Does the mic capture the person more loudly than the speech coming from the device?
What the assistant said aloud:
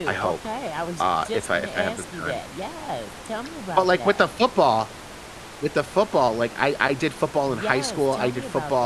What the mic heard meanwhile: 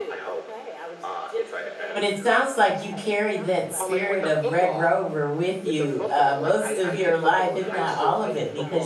Yes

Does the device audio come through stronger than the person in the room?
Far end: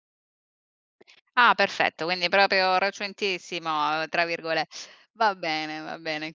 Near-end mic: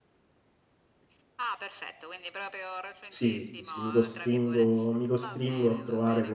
No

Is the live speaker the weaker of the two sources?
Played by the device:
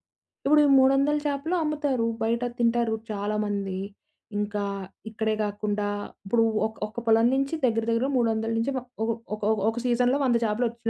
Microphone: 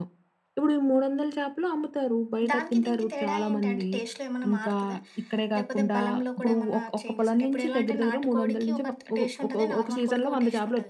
Yes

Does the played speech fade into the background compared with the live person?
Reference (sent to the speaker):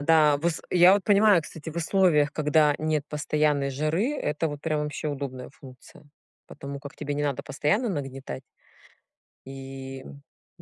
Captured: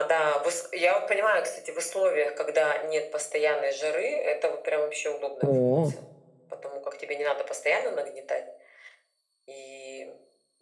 Yes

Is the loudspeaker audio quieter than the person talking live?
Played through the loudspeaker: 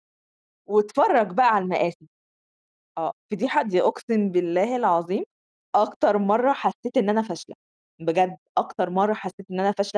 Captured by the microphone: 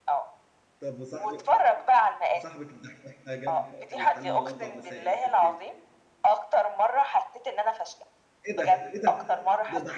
No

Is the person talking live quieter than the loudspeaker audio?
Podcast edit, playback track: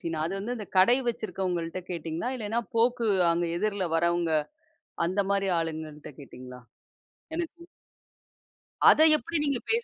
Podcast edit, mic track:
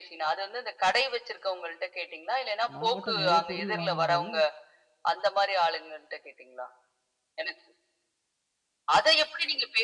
Yes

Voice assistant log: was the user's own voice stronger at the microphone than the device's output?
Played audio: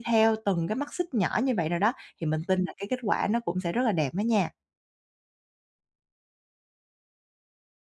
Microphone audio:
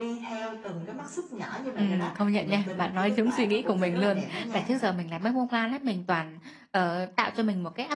Yes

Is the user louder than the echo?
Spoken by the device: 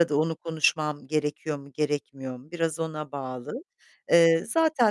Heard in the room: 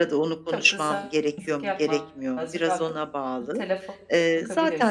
No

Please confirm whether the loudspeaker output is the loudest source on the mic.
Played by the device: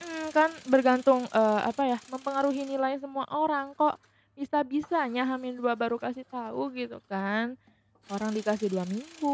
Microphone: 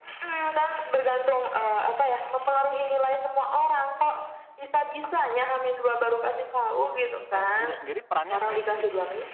Yes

